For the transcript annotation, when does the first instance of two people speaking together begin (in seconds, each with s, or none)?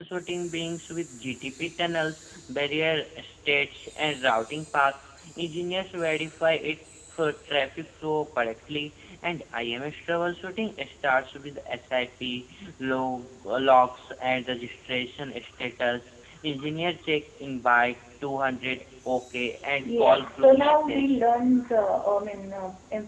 19.7 s